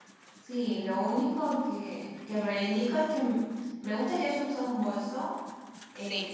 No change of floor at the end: Yes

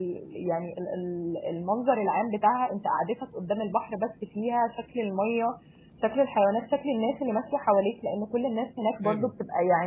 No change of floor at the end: Yes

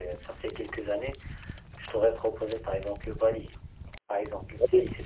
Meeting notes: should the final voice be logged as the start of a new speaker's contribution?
No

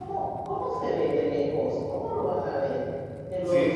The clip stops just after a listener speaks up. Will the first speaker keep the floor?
Yes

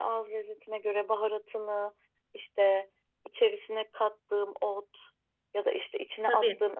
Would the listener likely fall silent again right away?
Yes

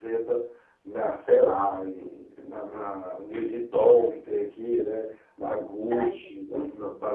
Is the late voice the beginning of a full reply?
No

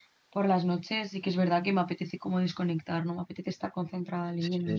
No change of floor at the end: No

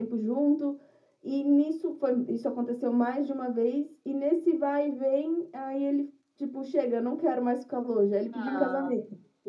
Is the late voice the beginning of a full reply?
Yes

